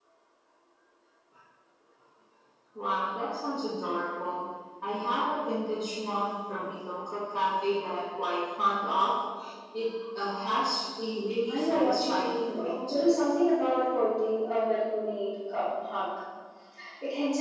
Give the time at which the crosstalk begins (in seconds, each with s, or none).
11.5 s